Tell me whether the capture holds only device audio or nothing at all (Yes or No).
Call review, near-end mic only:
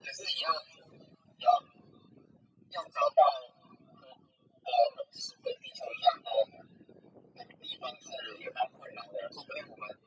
Yes